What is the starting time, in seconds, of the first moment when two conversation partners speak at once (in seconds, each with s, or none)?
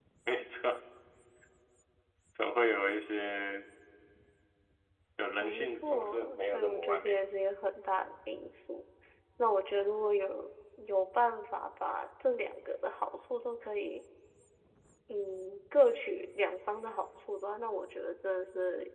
5.4 s